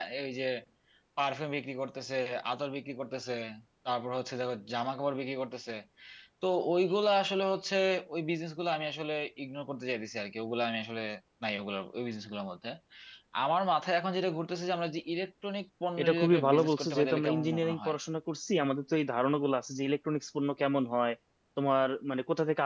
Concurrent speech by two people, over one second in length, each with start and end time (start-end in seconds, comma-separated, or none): 16.0-17.9